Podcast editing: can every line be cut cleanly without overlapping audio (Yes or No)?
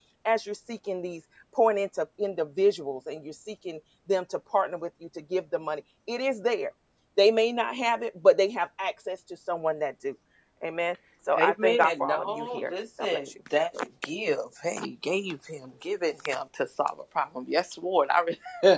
No